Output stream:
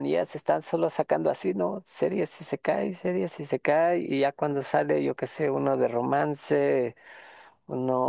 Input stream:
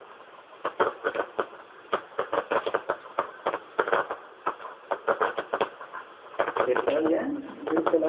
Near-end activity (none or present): present